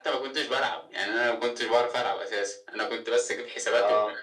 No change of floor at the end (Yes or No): Yes